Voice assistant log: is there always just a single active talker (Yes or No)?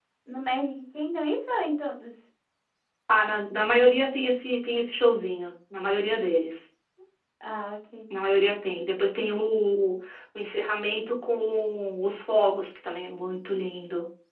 Yes